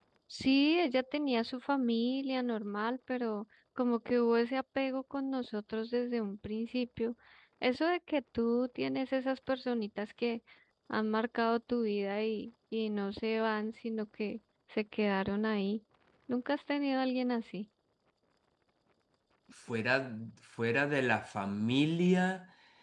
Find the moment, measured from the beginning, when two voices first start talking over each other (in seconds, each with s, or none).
none